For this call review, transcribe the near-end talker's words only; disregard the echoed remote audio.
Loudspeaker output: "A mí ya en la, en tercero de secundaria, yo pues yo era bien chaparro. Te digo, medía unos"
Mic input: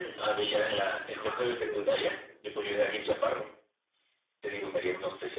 el caballo, el,

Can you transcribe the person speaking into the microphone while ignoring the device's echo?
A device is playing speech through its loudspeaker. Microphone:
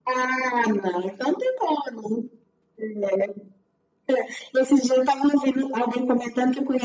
none

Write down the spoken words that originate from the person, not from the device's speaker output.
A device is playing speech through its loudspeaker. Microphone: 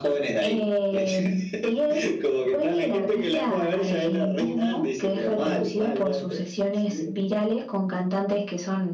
none

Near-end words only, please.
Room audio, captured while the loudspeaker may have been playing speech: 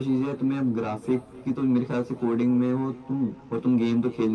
none

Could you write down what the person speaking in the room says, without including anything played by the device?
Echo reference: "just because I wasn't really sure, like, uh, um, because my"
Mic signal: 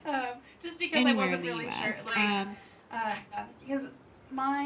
anywhere in the US. Um,

